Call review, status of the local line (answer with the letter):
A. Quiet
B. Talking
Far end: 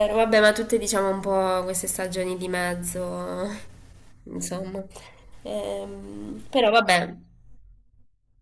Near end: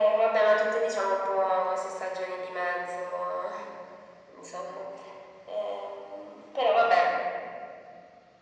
A